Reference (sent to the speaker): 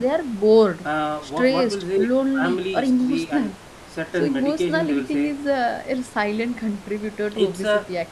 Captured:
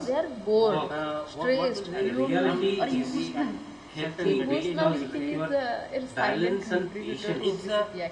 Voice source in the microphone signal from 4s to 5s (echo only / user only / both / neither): both